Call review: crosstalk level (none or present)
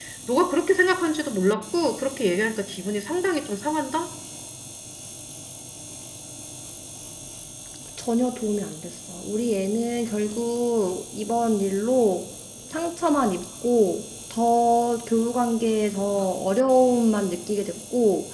none